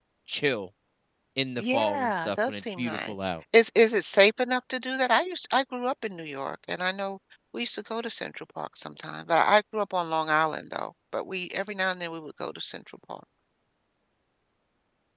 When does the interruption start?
1.6 s

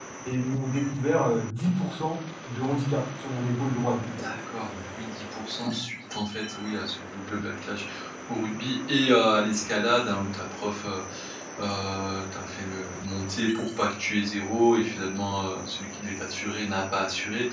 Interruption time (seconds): none

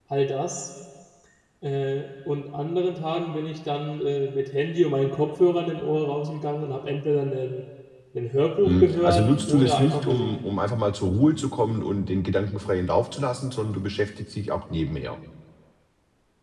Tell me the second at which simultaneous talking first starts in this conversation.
8.6 s

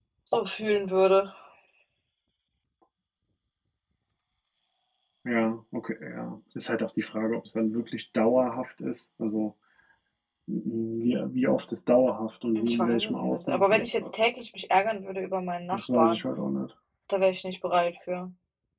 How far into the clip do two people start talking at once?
12.6 s

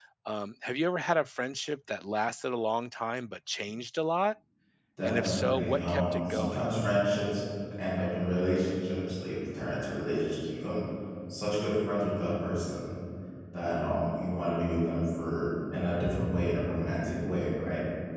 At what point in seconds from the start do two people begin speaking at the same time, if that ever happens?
5.0 s

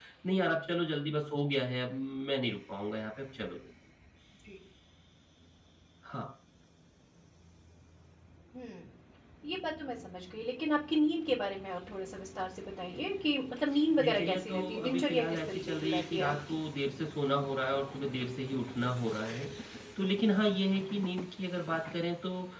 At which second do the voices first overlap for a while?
14.0 s

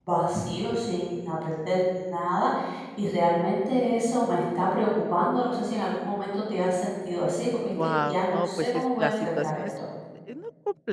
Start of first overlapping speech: 7.7 s

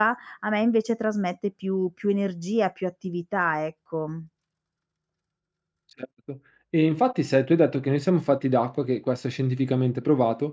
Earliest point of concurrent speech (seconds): none

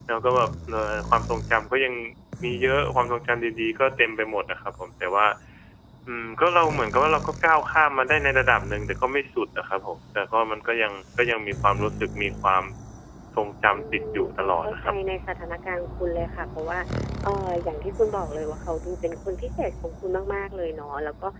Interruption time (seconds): 13.7 s

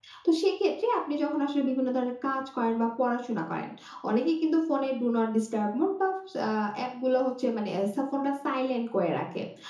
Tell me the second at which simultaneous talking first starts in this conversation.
none

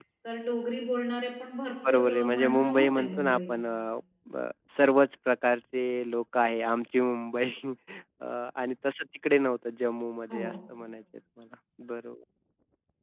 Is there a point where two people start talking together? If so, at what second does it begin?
1.9 s

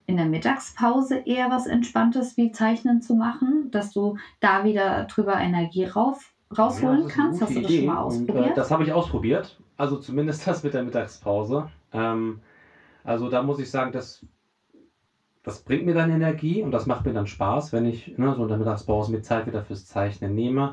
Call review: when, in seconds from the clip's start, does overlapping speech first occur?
6.6 s

